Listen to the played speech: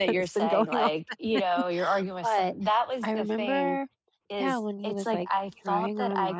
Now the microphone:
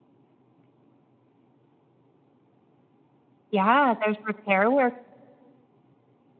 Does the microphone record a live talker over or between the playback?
Yes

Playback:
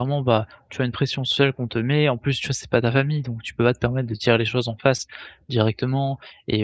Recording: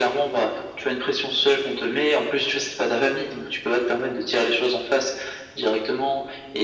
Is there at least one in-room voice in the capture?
No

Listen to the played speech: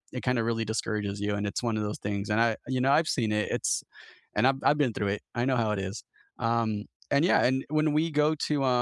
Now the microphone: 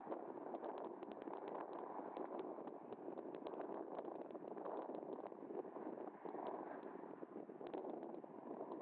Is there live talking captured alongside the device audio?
No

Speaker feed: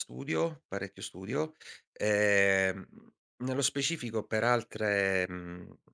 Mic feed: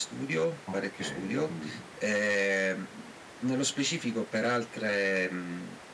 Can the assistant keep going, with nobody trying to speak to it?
No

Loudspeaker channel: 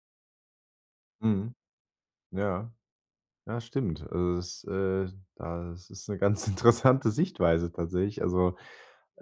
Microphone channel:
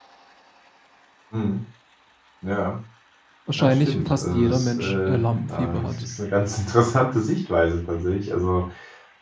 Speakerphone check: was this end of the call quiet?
No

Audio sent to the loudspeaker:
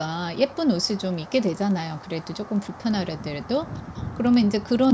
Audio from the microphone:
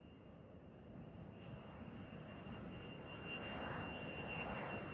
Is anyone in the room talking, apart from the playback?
No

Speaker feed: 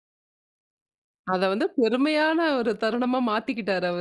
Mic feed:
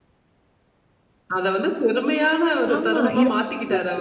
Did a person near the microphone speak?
Yes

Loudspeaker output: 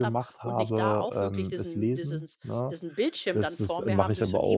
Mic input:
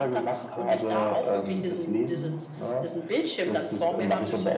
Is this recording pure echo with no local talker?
Yes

